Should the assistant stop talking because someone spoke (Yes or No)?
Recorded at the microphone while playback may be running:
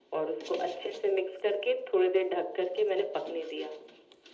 No